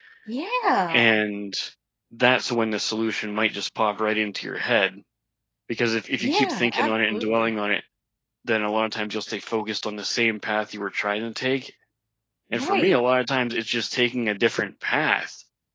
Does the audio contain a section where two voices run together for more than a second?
Yes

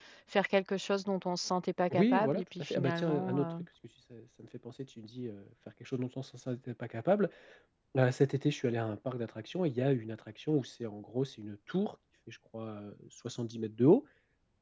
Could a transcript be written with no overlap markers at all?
No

